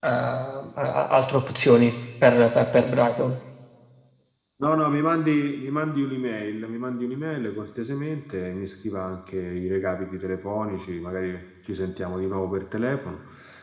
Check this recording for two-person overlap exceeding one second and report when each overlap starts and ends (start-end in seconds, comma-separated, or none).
none